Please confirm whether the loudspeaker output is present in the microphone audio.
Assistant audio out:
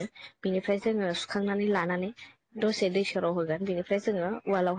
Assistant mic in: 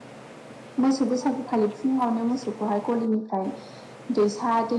No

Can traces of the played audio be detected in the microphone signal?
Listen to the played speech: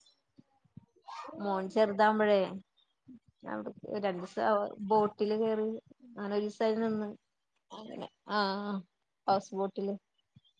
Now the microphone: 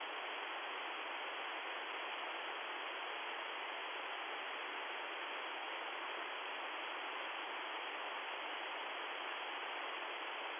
No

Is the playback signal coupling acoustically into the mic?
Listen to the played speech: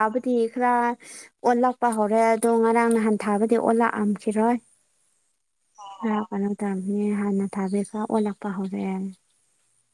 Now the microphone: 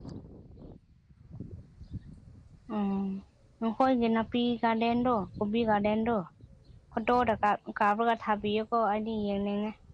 No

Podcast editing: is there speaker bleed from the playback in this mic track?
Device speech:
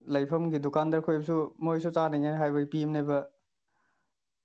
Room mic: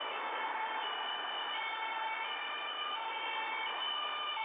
No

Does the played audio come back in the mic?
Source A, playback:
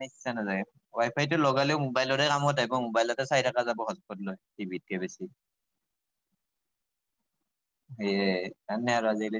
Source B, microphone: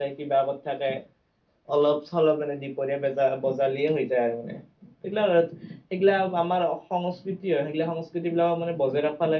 No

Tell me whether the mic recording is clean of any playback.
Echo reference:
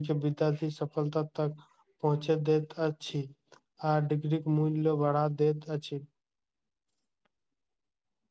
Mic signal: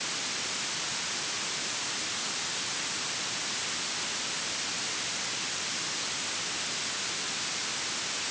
Yes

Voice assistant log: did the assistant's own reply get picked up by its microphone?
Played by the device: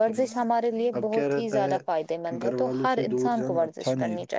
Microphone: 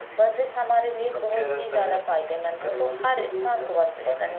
Yes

